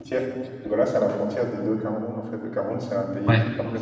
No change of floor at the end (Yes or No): Yes